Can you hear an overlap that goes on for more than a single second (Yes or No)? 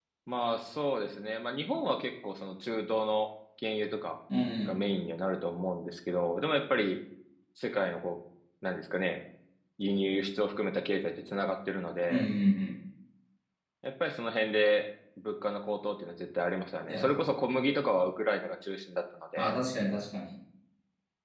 No